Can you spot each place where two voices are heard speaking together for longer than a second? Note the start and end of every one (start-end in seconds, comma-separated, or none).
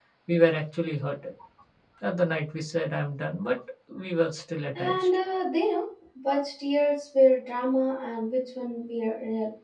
none